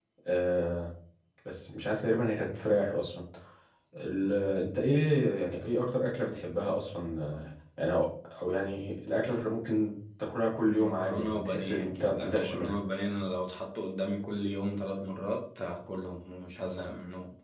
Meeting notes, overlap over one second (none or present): present